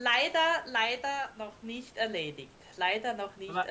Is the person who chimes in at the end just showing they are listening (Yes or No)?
No